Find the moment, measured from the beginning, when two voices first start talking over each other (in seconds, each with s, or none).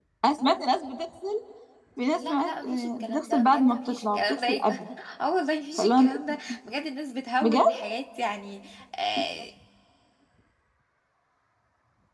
2.1 s